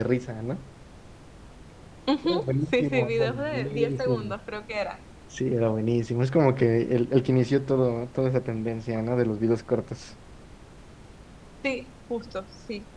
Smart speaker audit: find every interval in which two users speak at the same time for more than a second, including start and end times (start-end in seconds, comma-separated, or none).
2.2-4.3